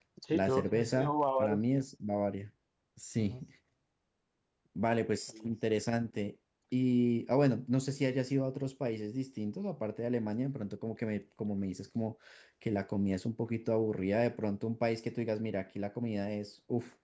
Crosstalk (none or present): present